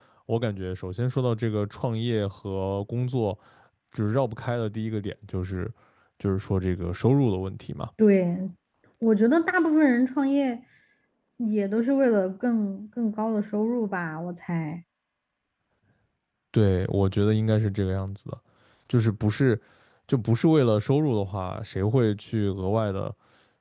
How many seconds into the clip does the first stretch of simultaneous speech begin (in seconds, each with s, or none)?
none